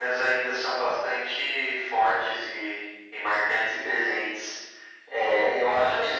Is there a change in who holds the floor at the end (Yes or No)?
Yes